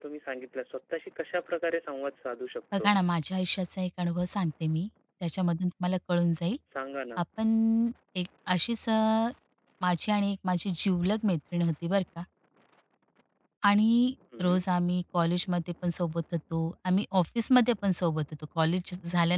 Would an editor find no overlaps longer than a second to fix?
Yes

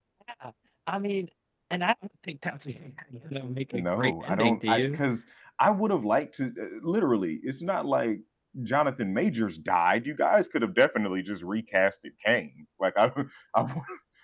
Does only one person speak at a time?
No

